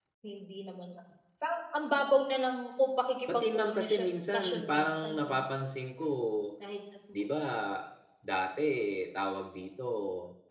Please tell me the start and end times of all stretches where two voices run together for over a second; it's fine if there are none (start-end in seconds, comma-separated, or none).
3.3-5.4